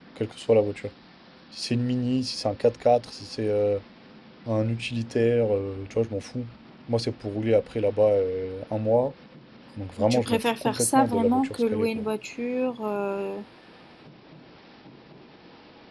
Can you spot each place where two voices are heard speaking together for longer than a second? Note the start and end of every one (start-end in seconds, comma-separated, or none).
10.0-12.0